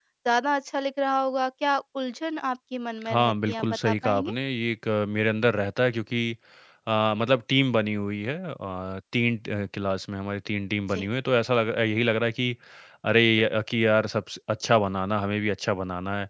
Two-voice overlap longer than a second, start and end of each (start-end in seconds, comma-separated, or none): 3.1-4.3